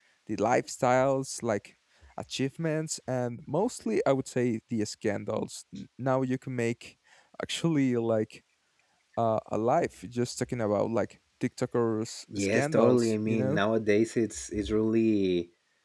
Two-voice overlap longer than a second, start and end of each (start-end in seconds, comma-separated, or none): 12.4-13.6